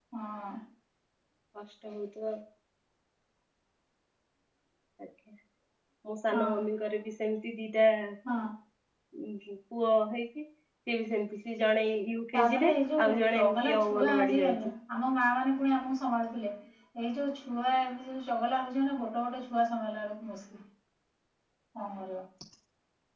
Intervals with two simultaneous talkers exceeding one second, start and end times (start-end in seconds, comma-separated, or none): 13.1-14.6